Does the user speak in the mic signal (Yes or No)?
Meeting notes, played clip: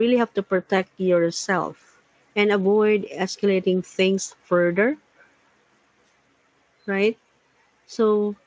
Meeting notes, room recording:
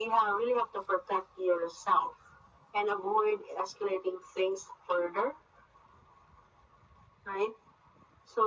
No